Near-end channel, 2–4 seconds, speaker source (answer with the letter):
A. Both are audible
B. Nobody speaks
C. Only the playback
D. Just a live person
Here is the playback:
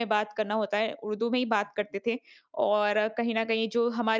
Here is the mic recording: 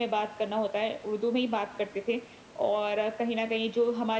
C